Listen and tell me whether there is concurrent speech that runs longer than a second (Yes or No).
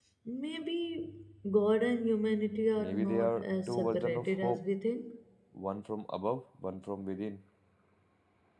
Yes